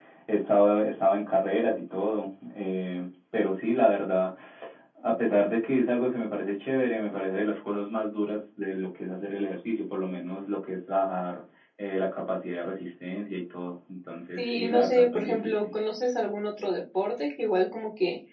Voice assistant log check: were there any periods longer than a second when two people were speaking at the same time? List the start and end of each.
14.4-15.7

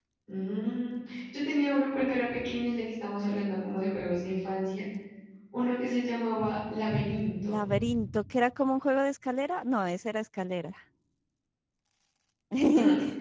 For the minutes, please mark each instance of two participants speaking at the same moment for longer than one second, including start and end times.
none

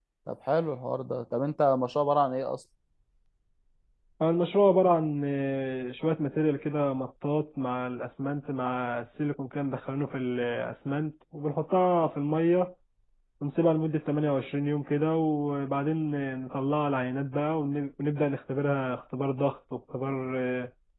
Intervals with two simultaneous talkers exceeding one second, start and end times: none

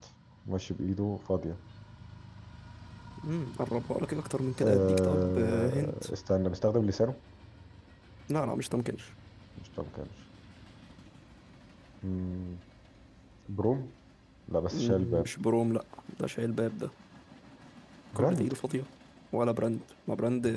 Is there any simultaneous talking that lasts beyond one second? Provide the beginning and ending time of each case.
4.6-5.9

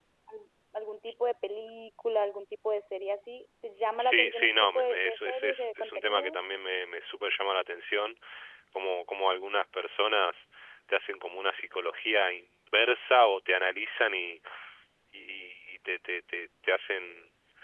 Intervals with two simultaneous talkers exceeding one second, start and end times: 4.0-6.4

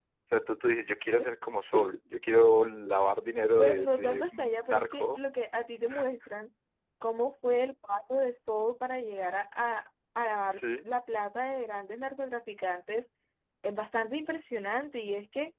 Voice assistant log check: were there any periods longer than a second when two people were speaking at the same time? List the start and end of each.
3.6-5.2

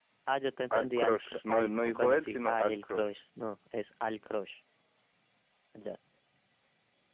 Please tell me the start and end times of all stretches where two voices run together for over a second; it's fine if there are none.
0.7-3.1

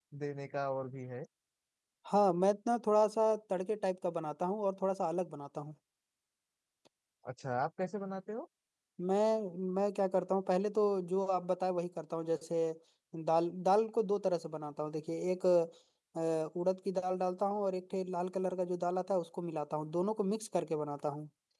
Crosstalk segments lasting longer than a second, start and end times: none

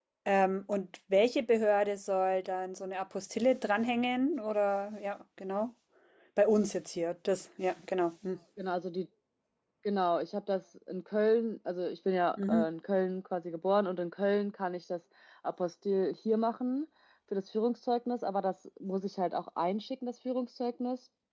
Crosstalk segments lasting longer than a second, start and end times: none

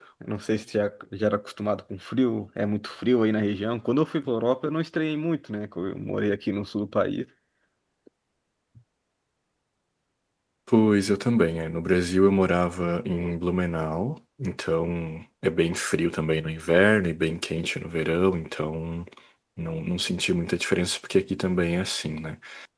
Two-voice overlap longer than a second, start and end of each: none

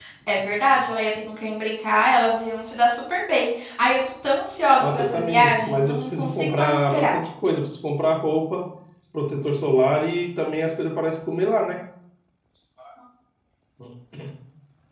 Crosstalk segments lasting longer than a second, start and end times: 4.8-7.1

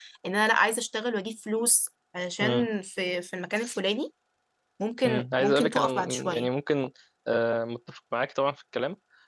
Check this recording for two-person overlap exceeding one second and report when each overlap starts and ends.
5.0-6.5

